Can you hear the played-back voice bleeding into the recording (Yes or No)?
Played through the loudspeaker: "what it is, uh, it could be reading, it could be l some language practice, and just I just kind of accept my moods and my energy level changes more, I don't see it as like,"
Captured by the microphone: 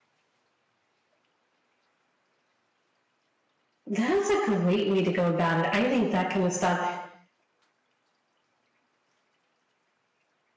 No